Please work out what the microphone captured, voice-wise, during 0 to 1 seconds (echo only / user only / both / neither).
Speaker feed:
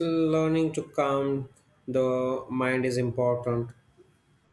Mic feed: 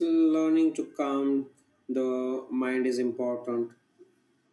echo only